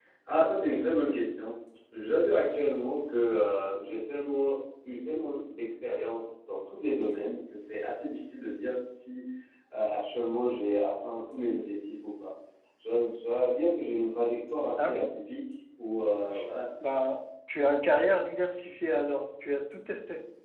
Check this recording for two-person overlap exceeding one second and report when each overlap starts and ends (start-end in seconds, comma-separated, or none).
none